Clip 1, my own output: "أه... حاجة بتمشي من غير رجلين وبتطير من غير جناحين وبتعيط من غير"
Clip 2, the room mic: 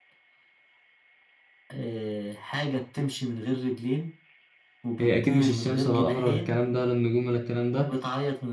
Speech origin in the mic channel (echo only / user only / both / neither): both